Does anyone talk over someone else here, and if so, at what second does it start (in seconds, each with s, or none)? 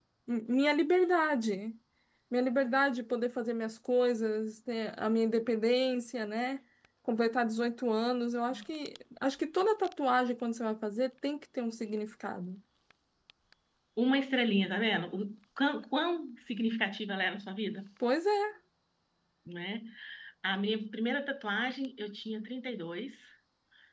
none